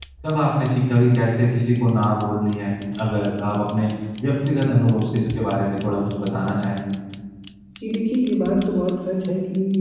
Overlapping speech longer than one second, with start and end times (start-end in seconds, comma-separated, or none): none